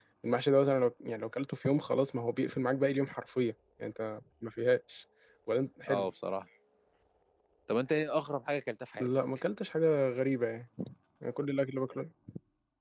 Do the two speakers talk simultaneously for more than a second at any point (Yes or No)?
No